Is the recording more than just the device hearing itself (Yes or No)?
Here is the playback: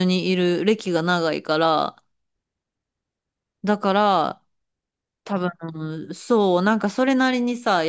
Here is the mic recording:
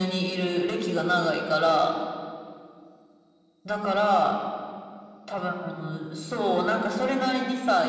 No